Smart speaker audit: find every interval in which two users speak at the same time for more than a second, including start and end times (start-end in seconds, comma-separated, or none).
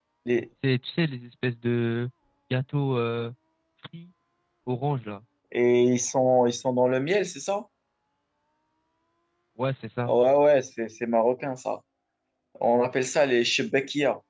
none